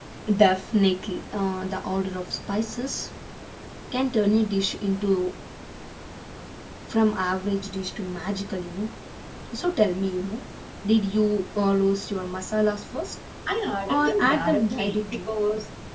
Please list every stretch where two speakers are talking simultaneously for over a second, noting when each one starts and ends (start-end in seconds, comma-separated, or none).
13.9-15.3